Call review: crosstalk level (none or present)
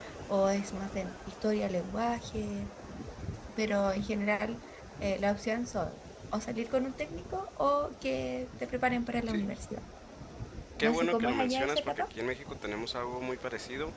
present